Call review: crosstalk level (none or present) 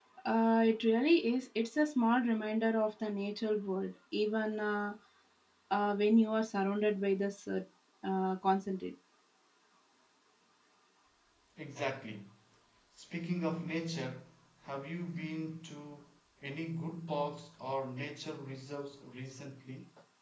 none